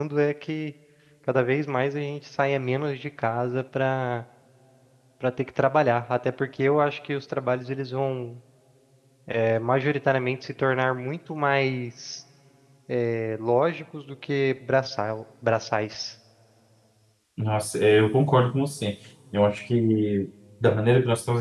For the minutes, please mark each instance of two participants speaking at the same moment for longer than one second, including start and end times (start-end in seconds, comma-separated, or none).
none